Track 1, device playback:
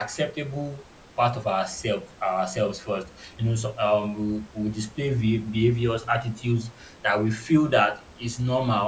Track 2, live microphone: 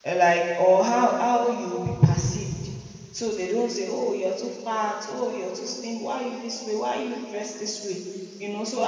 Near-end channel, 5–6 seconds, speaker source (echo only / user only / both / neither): user only